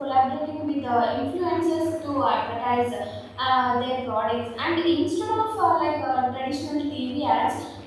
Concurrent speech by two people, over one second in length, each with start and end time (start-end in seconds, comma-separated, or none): none